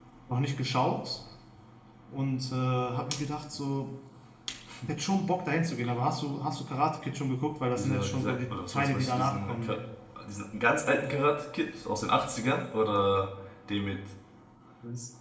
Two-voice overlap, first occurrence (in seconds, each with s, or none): 7.8 s